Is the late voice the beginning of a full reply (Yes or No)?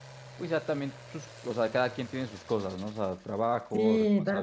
Yes